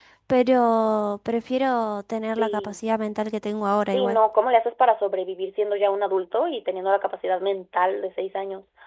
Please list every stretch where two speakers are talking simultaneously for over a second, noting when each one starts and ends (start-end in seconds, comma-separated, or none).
none